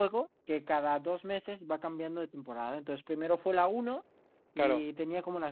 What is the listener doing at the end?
listening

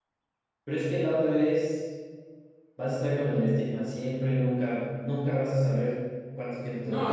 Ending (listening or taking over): taking over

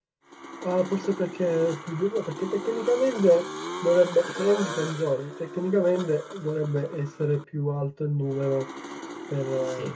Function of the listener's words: taking over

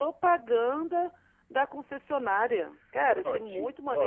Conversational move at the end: taking over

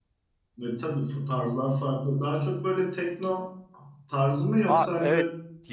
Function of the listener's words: taking over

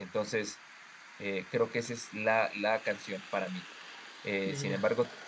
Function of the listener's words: listening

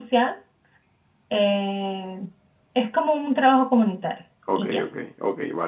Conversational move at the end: taking over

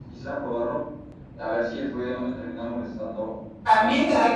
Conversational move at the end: taking over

